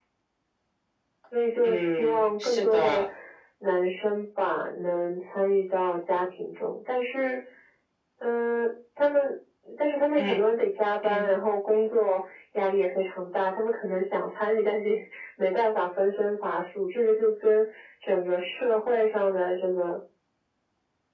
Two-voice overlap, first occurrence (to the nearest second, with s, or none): 2 s